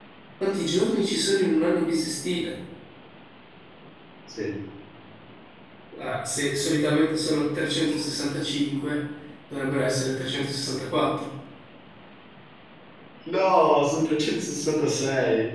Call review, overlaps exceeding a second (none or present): none